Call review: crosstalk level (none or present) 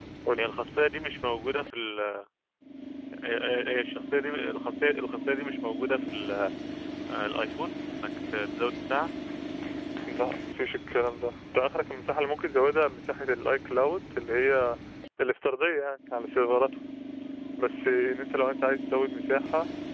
none